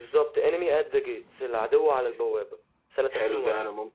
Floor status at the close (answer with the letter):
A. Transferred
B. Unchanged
A